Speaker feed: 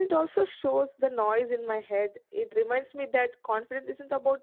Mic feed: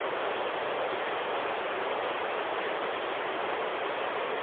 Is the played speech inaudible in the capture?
Yes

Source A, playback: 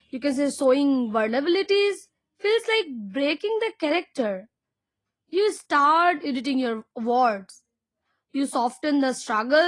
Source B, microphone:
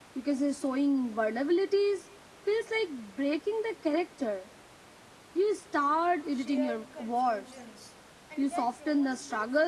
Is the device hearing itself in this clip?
Yes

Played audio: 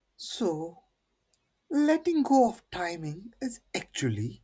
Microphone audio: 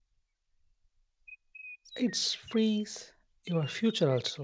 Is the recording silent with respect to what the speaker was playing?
Yes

